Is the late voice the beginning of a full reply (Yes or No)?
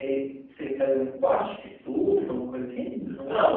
Yes